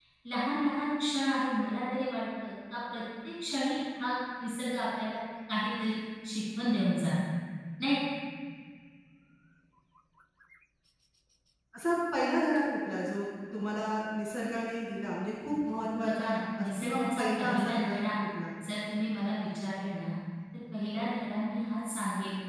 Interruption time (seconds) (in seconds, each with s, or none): 16.0 s